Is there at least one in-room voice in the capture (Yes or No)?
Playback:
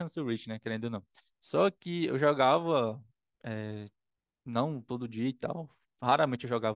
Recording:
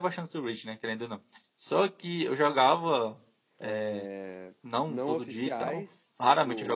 Yes